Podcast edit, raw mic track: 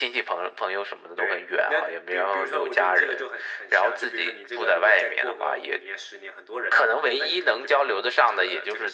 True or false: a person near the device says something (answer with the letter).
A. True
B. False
B